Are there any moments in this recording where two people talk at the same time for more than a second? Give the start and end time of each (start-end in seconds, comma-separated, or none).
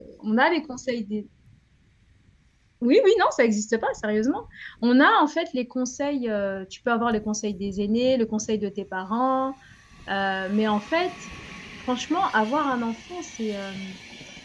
none